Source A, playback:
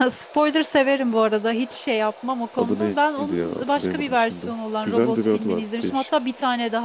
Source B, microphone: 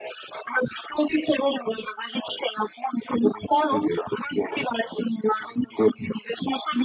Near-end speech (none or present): none